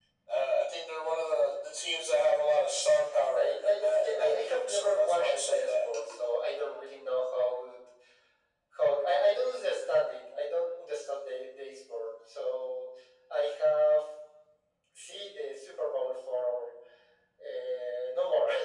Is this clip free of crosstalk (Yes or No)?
No